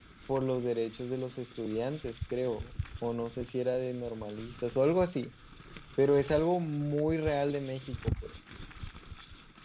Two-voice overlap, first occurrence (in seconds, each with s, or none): none